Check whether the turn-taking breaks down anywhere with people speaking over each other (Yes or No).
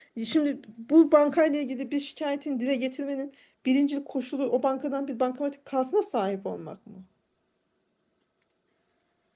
No